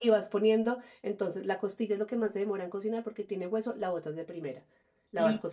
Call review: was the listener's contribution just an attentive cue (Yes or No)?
Yes